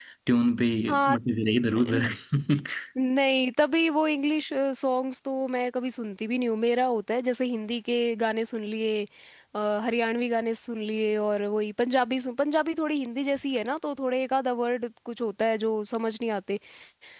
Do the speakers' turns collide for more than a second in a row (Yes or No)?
No